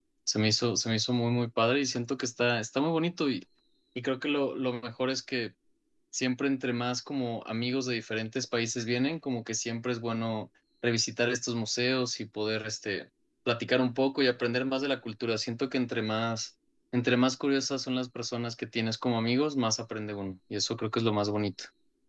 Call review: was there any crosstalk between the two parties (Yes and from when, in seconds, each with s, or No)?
No